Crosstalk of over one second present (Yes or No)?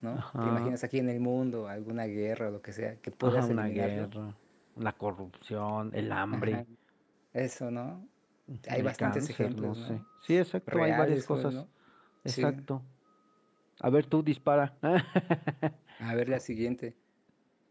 Yes